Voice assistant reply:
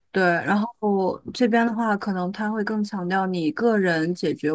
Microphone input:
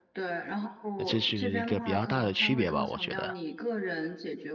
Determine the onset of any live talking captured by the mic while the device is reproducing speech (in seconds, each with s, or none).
1.0 s